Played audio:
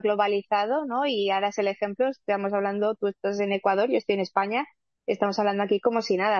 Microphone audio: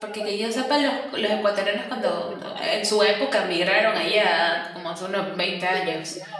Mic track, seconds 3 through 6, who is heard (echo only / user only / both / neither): both